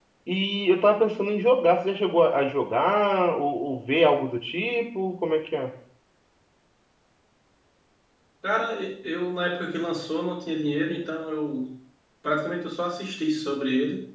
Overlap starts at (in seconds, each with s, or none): none